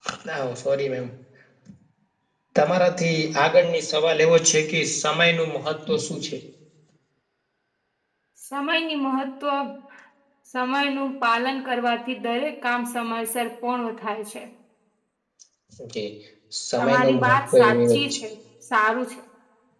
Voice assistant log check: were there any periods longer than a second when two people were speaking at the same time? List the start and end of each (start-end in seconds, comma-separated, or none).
16.8-18.0